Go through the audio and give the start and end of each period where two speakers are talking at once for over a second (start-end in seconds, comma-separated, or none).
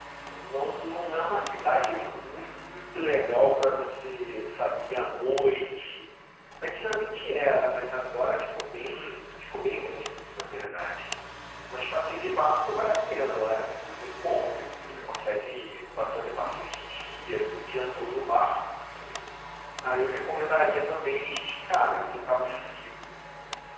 none